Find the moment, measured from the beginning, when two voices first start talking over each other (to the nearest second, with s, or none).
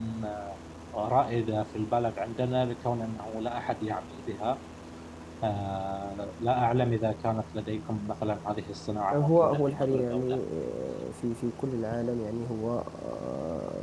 9 s